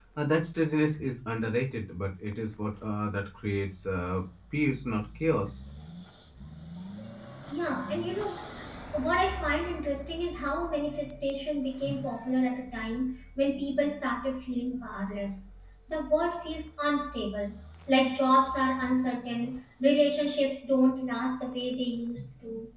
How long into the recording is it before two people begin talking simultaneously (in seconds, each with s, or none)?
none